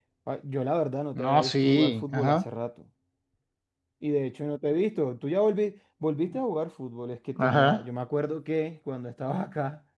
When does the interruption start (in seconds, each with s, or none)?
1.1 s